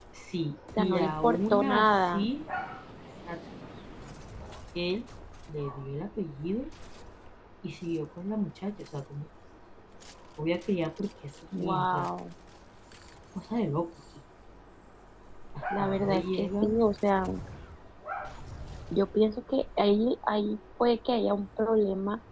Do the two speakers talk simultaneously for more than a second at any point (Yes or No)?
Yes